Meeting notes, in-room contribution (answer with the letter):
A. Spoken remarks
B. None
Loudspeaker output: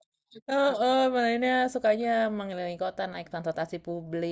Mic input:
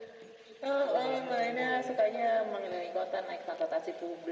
A